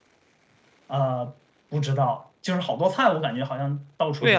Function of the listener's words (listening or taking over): taking over